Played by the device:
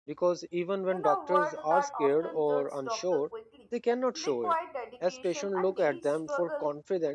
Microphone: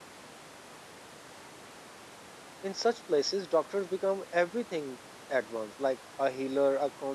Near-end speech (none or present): present